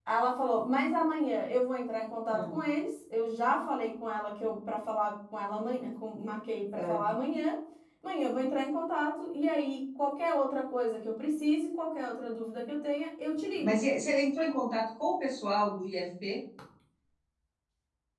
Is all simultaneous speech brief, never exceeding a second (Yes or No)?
Yes